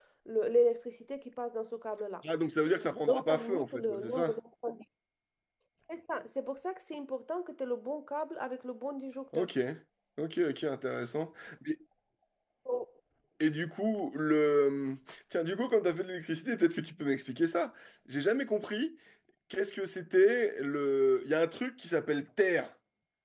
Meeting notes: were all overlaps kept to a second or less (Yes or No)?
No